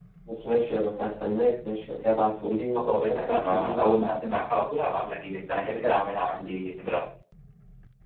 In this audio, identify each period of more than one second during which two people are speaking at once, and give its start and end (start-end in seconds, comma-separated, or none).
2.8-4.0